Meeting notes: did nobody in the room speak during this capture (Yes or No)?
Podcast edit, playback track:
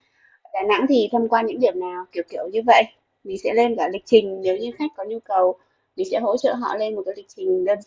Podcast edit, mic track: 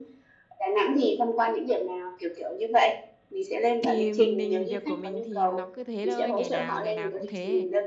No